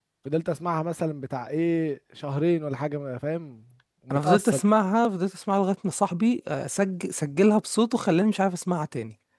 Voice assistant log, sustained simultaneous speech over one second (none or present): none